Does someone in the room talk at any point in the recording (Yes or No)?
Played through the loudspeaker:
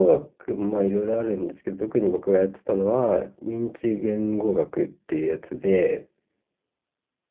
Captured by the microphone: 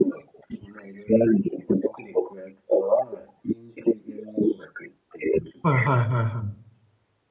Yes